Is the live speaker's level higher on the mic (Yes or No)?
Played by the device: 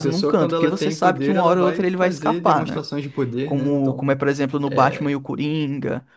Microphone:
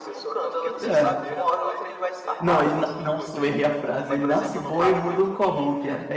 Yes